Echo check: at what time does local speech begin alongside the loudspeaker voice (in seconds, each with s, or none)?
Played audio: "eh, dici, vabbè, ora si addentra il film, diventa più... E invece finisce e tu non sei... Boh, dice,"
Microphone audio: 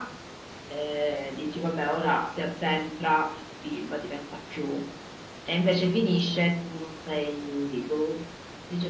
none